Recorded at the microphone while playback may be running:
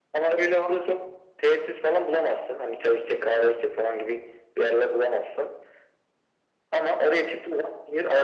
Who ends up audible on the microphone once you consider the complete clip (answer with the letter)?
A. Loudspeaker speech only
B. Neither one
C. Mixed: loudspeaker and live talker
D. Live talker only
A